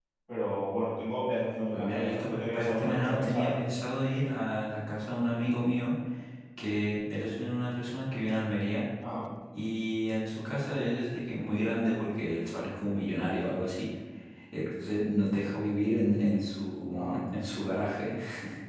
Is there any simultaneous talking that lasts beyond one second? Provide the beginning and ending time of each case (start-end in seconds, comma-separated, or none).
1.7-3.5